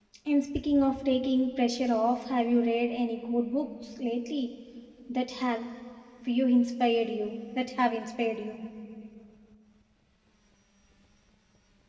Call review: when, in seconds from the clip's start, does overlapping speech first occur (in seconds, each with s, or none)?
none